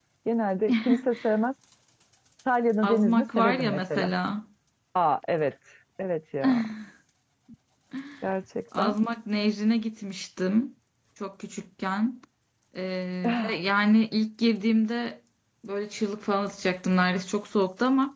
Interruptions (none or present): present